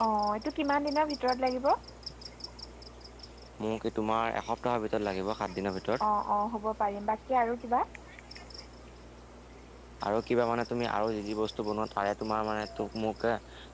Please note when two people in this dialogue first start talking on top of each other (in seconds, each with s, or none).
none